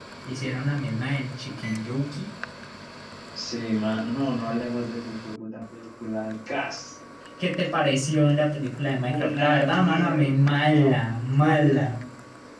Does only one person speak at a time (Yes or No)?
No